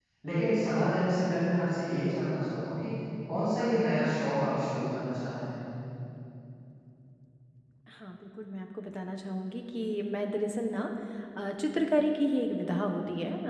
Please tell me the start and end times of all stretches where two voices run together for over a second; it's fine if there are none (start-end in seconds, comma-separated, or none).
none